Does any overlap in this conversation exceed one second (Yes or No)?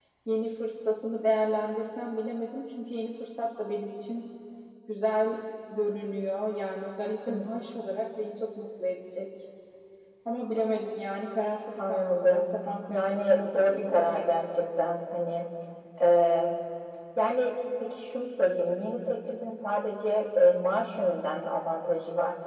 Yes